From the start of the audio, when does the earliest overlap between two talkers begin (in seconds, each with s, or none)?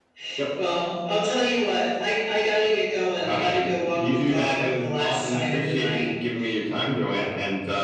3.2 s